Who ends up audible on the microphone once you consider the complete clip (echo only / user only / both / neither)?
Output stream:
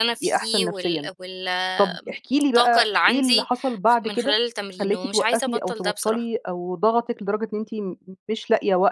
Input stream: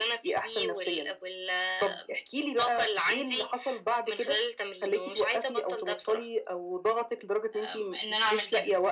both